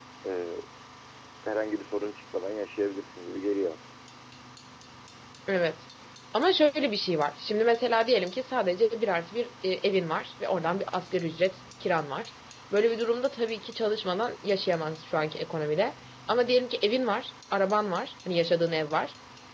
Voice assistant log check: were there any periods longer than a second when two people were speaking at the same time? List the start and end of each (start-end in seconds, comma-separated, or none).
none